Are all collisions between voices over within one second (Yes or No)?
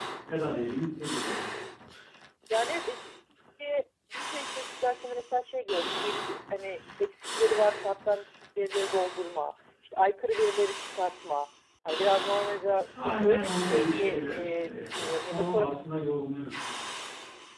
No